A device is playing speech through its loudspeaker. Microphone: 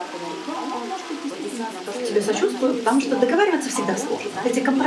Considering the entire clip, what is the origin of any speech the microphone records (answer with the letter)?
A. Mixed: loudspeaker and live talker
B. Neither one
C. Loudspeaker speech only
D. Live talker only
A